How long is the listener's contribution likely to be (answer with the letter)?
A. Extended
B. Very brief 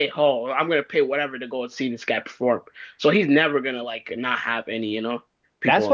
A